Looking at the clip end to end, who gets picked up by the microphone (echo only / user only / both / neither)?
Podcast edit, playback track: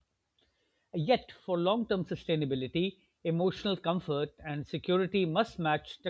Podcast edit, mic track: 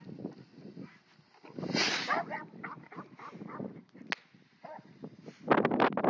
neither